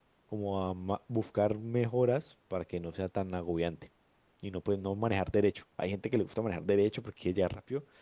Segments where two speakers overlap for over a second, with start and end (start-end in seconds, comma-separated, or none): none